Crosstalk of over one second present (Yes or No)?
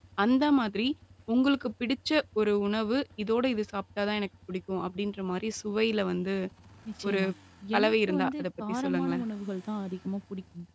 Yes